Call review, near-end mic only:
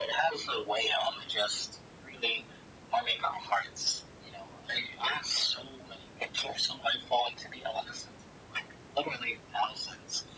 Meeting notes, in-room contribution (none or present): none